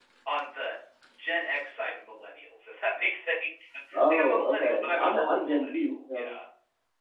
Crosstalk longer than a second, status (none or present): present